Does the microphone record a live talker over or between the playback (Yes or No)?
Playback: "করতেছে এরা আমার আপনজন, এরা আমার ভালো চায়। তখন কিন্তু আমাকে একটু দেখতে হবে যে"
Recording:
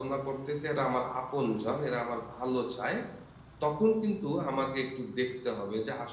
No